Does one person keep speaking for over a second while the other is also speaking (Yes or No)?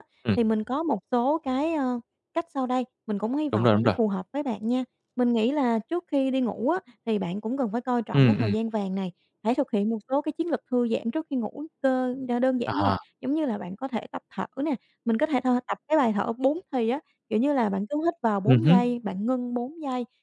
No